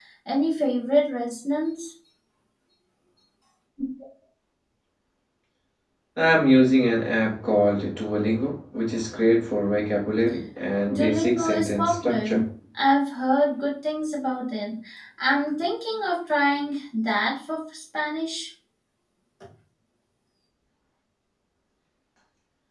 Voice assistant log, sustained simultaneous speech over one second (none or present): present